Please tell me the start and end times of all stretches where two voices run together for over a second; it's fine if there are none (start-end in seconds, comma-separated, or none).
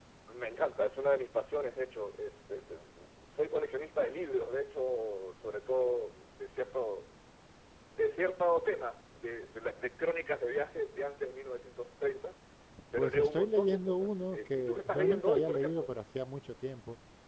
13.0-15.9